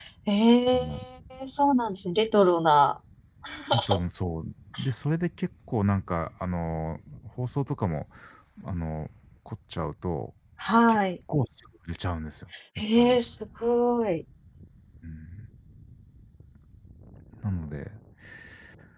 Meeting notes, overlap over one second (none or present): none